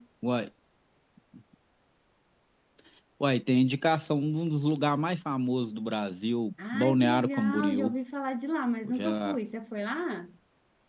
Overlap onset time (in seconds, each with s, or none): 6.7 s